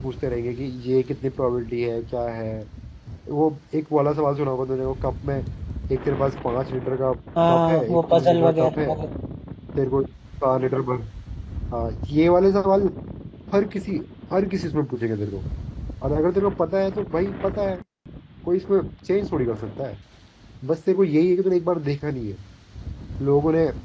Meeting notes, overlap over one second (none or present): present